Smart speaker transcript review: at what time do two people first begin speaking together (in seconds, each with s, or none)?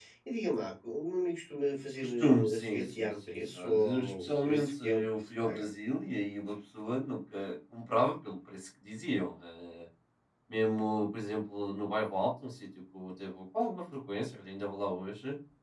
2.0 s